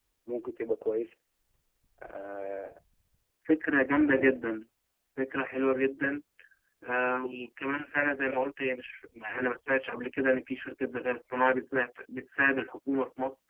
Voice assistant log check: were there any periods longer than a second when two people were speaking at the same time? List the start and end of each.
none

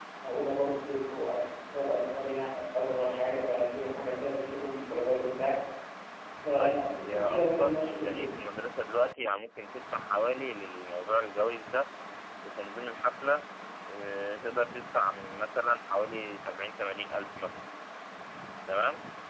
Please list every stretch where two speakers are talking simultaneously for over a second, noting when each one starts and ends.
6.6-8.3

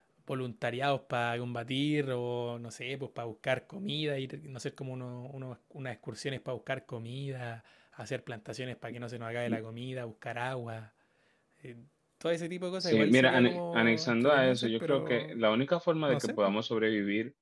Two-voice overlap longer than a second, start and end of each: 12.8-15.4

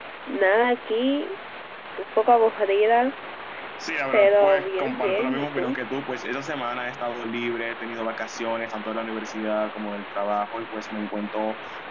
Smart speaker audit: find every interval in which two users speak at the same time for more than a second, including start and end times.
4.1-5.8

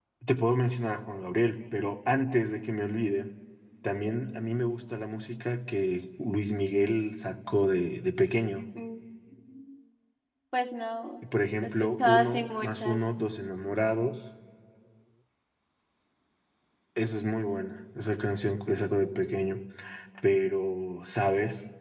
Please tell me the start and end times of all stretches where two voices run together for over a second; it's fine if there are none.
11.6-13.0

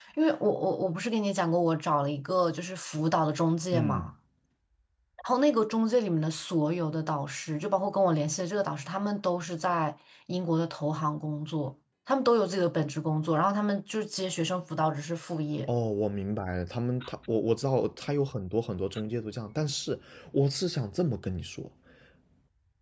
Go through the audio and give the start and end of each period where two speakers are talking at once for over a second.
none

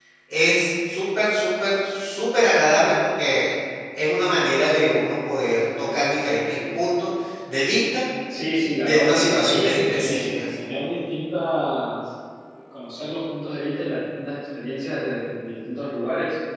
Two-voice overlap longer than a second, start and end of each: 8.8-10.4

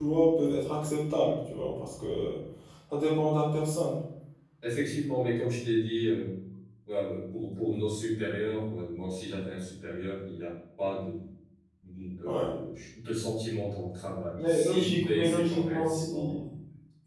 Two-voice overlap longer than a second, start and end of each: 14.4-16.4

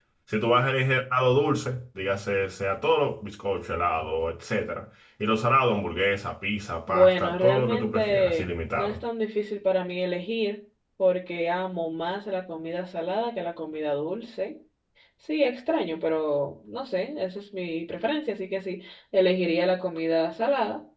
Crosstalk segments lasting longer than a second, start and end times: 6.9-8.9

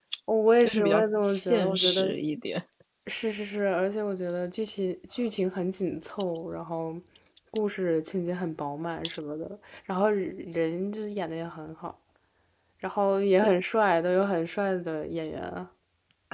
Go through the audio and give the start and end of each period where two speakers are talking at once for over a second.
0.6-2.1

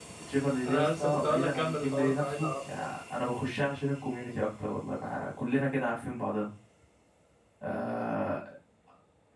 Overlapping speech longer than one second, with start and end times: 0.7-2.9

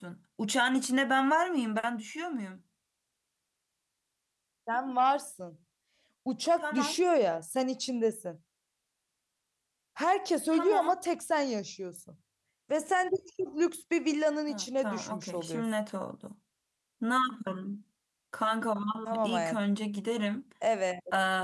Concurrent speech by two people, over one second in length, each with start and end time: 14.5-15.8

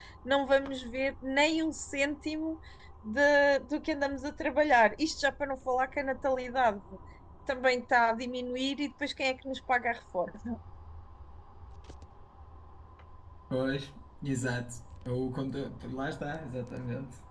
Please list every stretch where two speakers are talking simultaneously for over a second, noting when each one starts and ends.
none

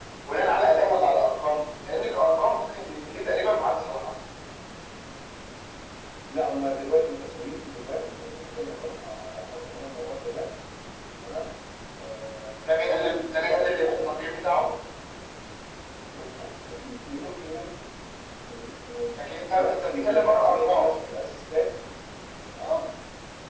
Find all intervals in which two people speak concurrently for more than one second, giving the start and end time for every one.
12.7-14.2, 19.6-20.9

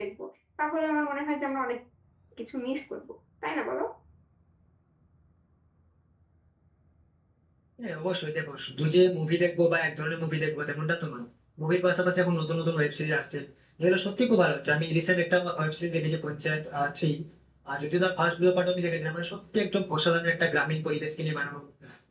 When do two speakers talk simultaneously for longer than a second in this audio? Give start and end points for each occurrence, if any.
none

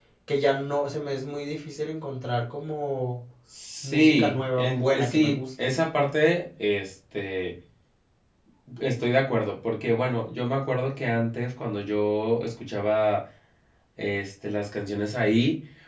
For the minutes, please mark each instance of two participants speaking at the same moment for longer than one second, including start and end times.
3.8-5.7

